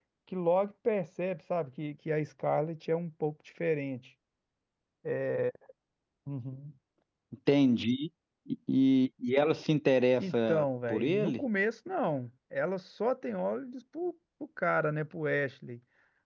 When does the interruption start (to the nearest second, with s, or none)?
10 s